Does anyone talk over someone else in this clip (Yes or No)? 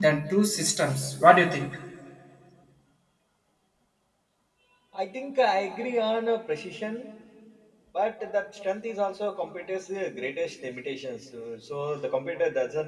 No